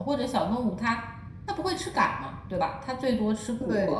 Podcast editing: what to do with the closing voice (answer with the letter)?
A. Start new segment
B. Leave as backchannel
A